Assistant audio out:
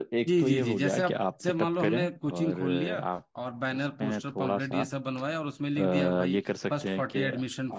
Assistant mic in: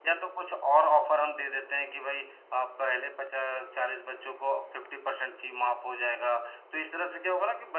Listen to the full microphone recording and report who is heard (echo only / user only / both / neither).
user only